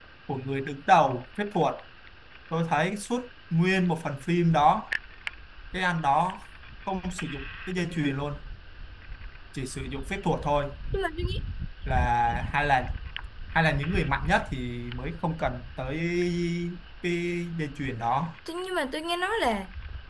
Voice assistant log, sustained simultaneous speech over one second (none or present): none